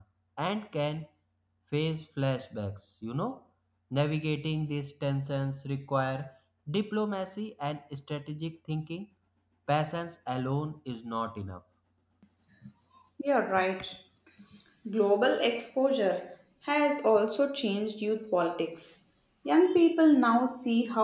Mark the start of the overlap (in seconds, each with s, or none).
none